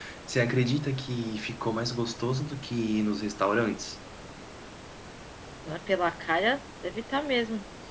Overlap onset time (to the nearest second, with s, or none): none